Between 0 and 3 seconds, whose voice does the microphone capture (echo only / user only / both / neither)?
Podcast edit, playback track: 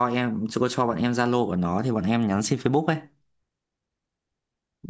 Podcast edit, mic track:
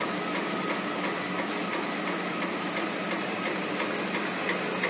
neither